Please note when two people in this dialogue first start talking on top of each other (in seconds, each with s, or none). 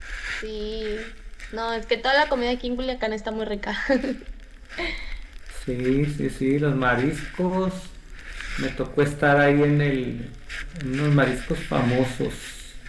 none